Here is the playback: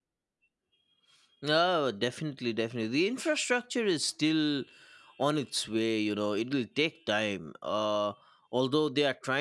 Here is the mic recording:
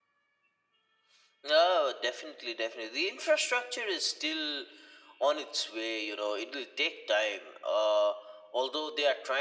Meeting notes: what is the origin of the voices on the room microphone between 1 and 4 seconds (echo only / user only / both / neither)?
echo only